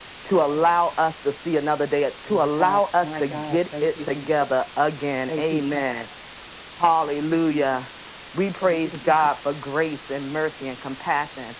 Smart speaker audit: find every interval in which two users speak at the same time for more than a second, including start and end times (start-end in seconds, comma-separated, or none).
2.3-4.2